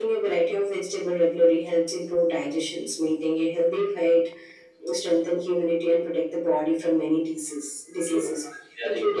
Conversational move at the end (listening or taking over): taking over